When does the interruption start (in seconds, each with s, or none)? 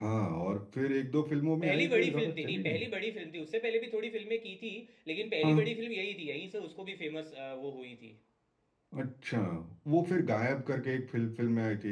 1.6 s